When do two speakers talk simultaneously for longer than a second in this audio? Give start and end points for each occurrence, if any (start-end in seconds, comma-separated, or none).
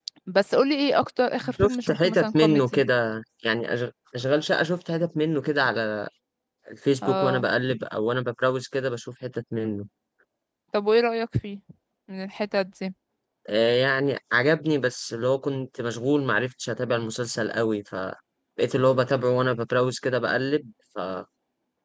1.5-2.8